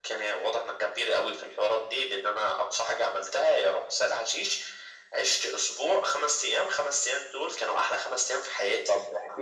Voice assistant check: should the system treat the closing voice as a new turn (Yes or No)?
Yes